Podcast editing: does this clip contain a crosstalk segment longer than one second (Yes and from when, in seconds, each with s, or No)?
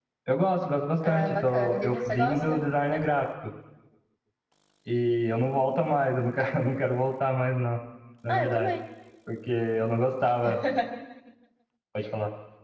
Yes, from 1.0 s